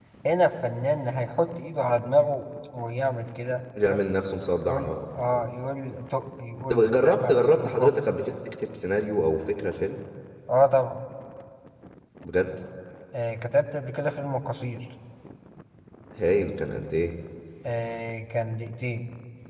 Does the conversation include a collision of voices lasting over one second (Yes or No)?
Yes